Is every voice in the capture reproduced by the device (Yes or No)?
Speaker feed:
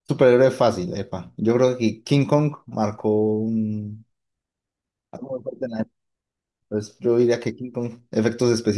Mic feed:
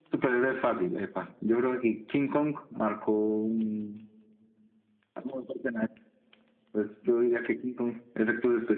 Yes